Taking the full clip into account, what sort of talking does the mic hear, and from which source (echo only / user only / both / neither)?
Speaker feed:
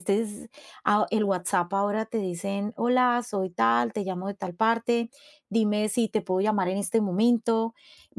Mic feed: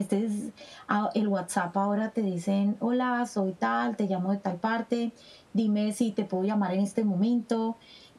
echo only